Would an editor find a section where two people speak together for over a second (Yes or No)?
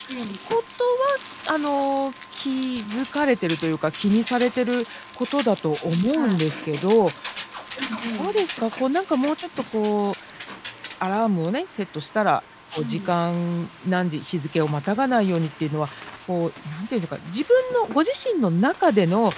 No